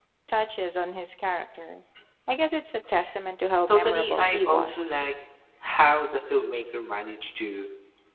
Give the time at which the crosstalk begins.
4 s

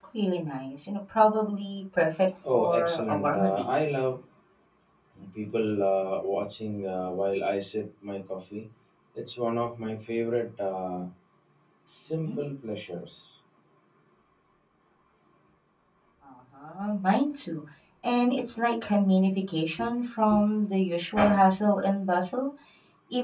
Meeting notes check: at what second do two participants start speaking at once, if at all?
2 s

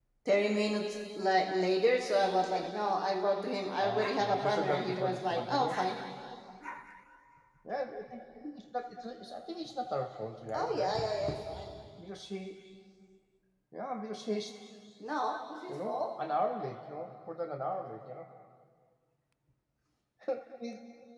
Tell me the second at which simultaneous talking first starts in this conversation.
4 s

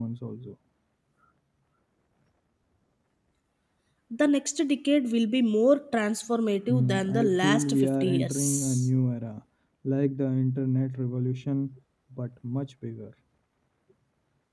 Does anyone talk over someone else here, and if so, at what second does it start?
7 s

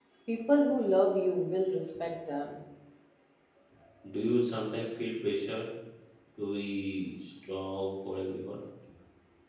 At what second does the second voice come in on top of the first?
none

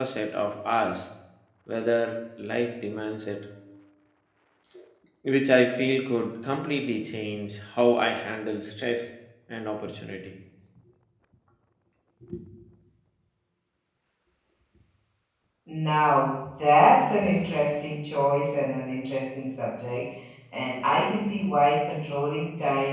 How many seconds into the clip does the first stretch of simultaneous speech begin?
none

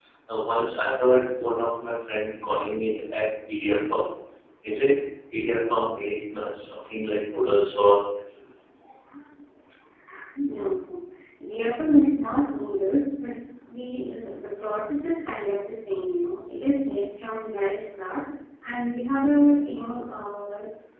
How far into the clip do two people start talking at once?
none

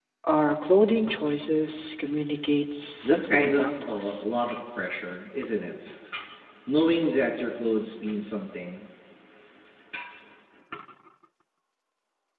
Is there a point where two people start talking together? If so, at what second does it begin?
3 s

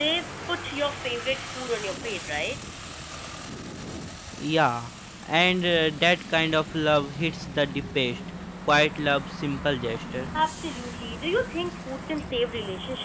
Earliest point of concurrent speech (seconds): none

